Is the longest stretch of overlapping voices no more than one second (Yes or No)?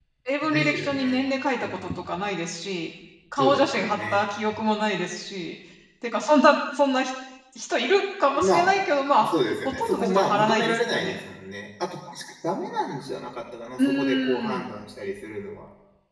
No